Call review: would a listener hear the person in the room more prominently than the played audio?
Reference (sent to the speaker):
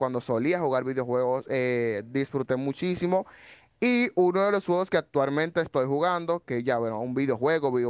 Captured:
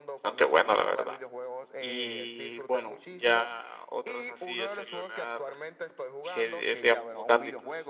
Yes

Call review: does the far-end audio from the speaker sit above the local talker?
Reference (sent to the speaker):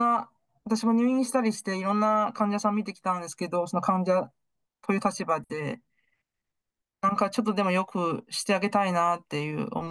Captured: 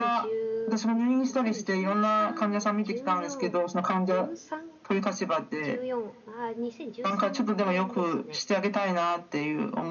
Yes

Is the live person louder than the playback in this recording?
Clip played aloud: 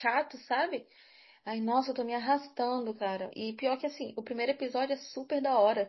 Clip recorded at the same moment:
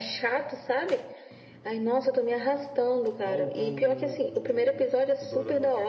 No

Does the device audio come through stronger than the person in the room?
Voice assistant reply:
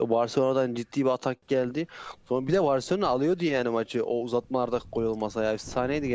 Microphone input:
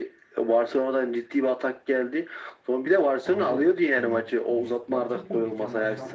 Yes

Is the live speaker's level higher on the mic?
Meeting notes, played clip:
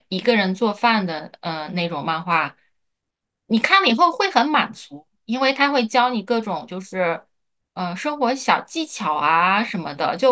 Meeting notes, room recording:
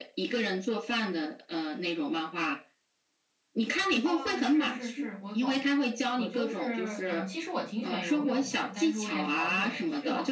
No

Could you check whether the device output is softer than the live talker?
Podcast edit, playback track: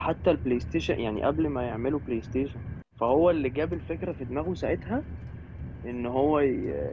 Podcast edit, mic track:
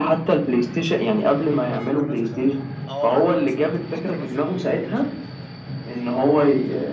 No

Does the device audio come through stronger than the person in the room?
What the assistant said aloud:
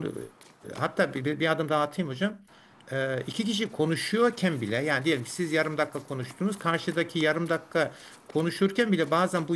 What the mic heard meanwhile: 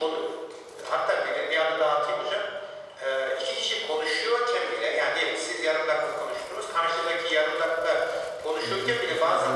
Yes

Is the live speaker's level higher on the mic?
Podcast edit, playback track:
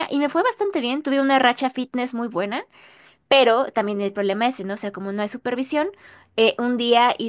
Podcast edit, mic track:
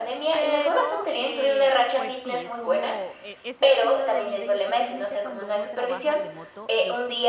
No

